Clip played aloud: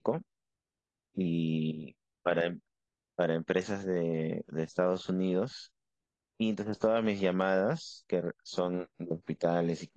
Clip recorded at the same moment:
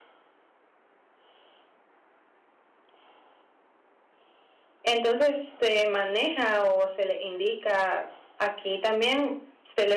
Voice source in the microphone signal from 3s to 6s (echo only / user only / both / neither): user only